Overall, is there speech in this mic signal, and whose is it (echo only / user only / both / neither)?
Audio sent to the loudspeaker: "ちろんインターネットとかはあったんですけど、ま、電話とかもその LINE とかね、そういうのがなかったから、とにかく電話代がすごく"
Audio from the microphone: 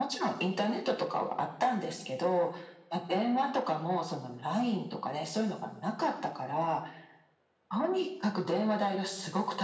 echo only